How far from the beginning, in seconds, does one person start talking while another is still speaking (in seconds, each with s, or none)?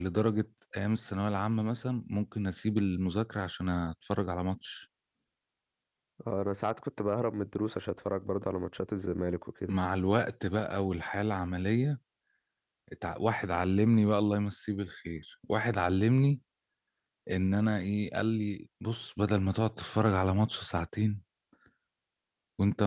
none